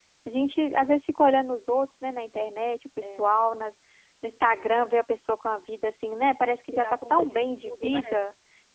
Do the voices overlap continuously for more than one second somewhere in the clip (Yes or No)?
Yes